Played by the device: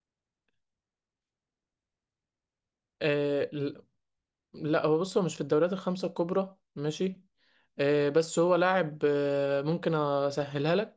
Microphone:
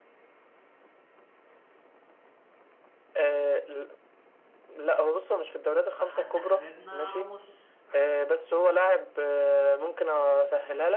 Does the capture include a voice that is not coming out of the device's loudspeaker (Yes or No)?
Yes